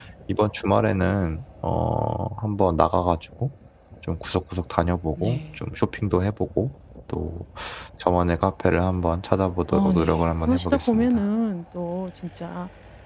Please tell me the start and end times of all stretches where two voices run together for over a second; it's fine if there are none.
9.7-11.2

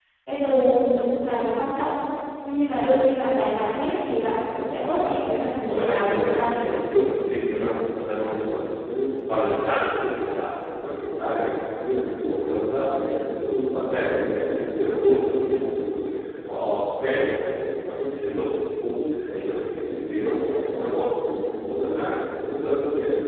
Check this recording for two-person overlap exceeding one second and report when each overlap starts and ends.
5.6-7.1

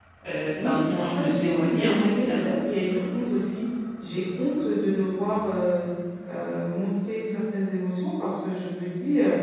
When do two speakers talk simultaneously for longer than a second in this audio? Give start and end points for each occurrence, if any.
0.6-2.5

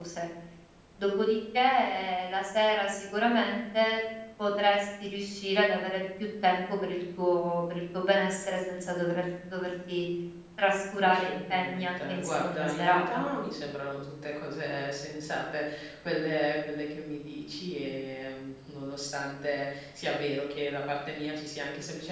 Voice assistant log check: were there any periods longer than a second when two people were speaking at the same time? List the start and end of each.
11.0-13.3

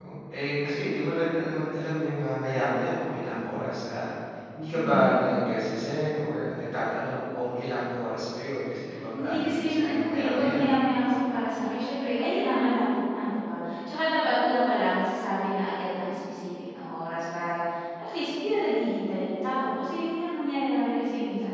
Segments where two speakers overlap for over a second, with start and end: 9.2-10.8

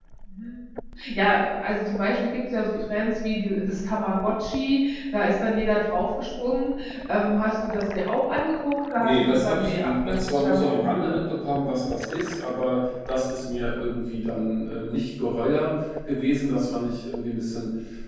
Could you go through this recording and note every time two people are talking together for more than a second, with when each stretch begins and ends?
8.9-11.2

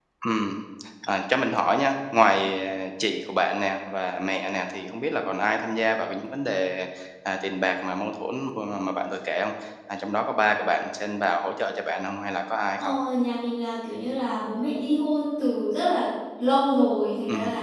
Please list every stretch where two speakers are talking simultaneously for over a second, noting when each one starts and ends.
none

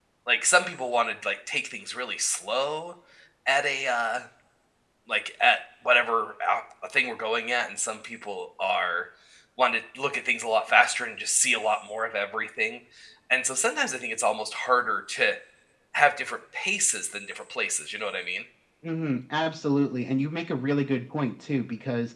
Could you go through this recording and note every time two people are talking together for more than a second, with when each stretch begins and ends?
none

